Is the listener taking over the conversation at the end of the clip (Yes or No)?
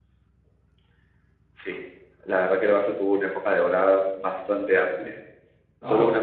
No